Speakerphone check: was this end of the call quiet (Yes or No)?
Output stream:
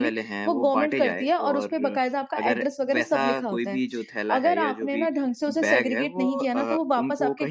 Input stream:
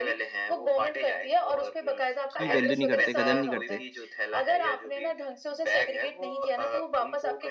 No